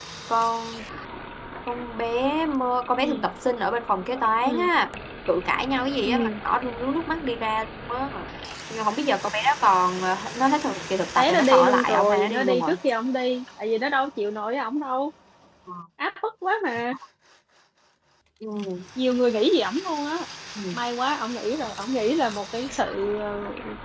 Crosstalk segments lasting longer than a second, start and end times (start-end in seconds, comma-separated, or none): 11.2-12.7